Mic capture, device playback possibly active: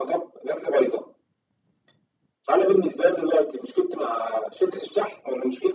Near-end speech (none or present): none